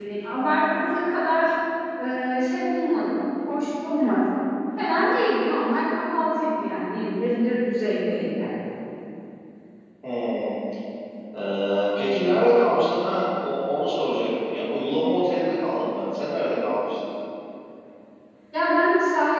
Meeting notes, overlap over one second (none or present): none